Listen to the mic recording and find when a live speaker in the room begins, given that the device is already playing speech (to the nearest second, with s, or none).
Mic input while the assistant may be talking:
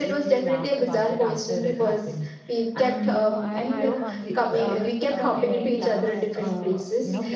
3 s